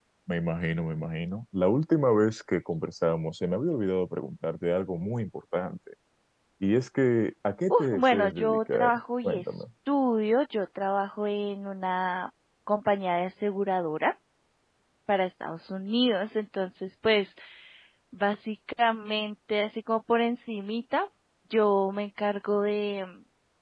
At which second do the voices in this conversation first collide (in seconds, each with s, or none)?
7.7 s